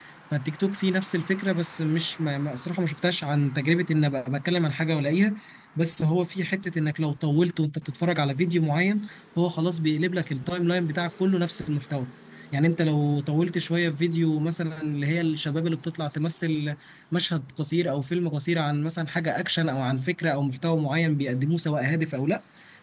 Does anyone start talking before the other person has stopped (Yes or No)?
No